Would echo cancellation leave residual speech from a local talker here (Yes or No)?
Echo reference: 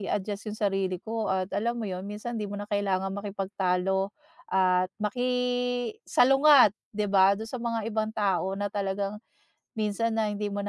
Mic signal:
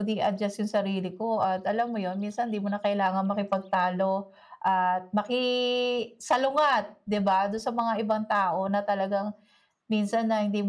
No